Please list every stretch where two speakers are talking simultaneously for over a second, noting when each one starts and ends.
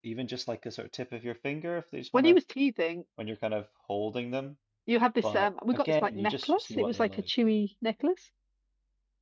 5.2-7.3

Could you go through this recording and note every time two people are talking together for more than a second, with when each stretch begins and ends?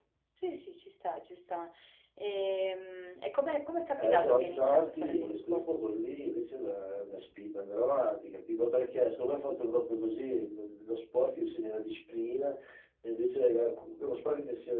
4.0-5.7

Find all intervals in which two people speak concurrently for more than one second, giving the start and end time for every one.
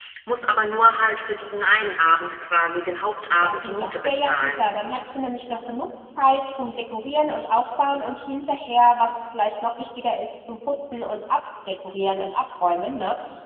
3.3-4.6

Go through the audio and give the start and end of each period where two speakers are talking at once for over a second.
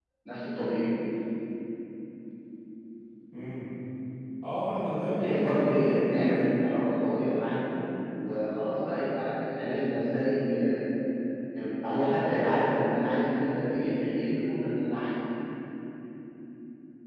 5.1-6.6

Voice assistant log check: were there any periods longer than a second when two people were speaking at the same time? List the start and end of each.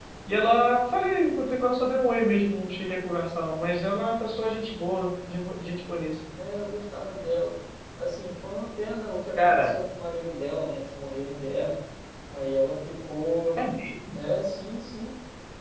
none

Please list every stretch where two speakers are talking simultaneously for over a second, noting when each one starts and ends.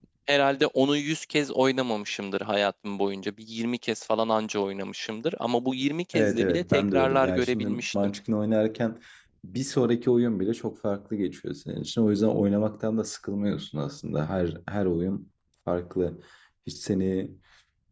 6.1-7.8

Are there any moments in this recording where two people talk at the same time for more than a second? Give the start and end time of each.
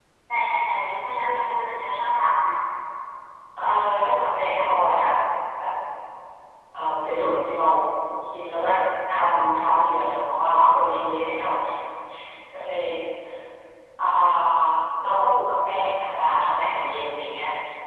none

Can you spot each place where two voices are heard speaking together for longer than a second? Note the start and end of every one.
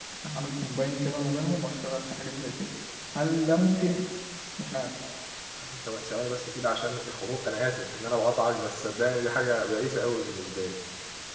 none

